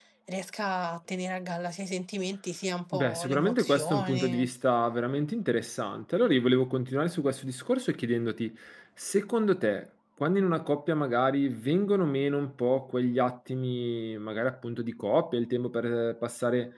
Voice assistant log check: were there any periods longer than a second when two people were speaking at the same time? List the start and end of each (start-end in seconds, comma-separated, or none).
2.9-4.5